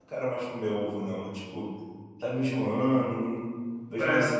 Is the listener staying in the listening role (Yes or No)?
Yes